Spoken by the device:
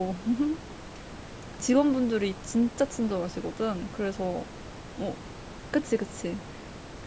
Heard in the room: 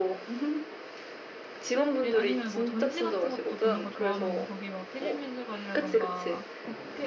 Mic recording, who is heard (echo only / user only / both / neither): both